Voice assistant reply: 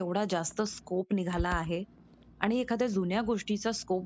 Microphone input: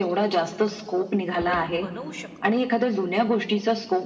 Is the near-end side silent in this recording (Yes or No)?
No